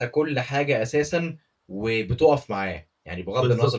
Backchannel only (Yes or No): No